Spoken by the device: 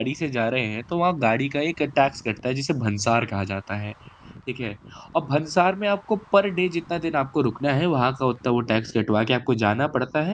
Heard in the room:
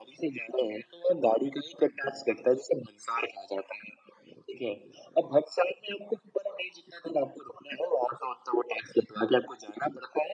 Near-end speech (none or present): none